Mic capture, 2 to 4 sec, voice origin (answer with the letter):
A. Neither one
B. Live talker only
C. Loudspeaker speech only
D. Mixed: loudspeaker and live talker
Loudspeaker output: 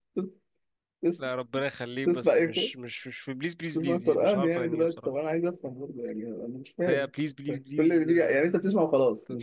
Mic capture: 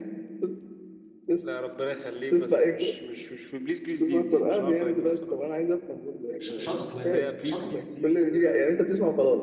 C